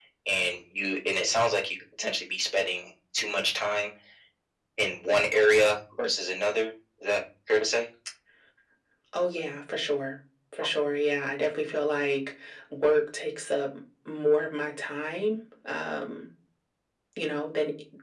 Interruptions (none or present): none